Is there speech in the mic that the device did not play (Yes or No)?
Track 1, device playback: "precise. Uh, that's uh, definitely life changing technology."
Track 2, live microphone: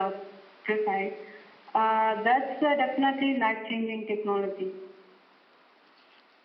No